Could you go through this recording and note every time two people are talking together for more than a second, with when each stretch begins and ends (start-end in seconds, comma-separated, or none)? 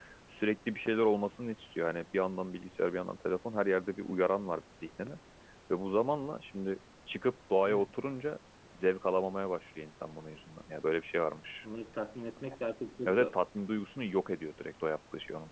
none